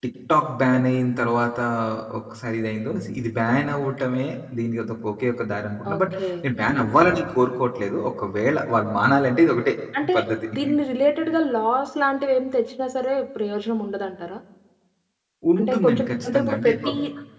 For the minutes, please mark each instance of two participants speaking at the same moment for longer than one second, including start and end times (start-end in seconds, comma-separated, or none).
15.6-16.9